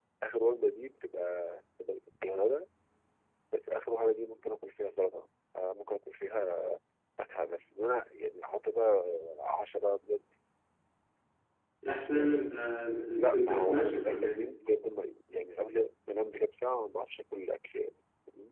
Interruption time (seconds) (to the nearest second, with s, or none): 13 s